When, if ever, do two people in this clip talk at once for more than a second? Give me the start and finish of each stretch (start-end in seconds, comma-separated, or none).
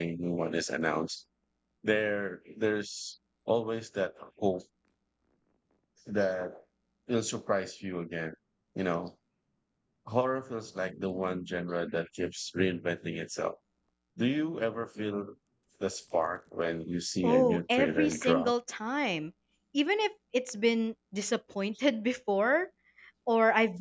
17.2-18.5